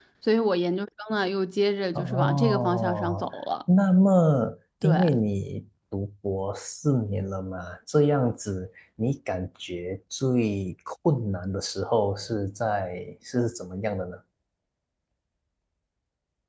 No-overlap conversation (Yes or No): No